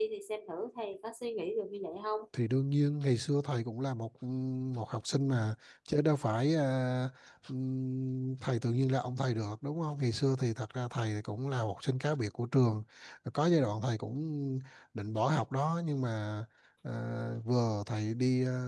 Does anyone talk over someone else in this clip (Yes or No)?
No